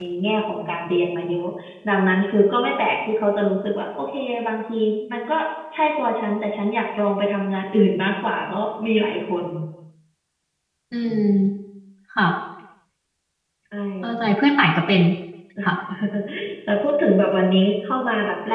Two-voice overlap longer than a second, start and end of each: none

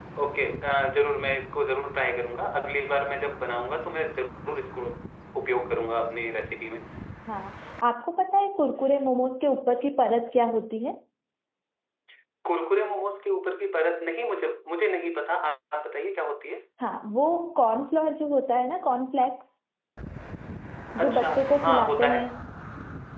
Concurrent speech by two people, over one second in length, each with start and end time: 21.0-22.3

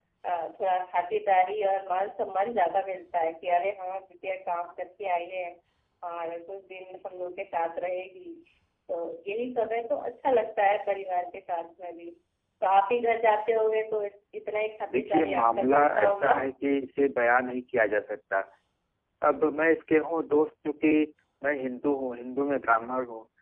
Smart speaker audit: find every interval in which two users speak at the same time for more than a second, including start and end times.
14.9-16.3

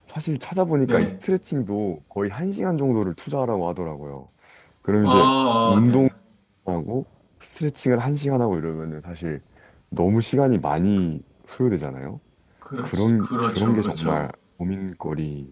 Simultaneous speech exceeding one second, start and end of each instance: 12.8-14.2

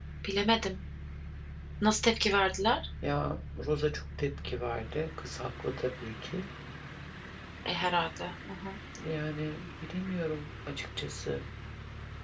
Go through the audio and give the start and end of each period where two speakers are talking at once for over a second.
none

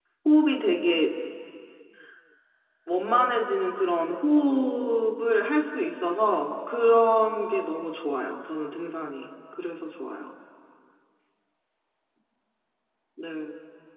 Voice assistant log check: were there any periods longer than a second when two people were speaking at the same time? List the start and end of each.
none

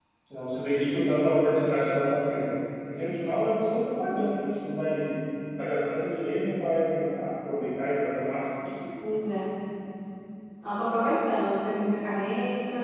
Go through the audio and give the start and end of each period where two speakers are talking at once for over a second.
none

